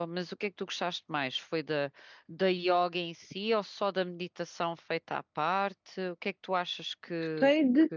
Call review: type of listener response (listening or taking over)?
taking over